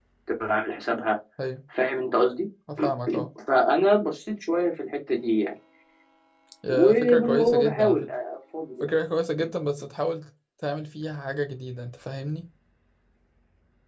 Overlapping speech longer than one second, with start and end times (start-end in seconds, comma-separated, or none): 6.7-8.1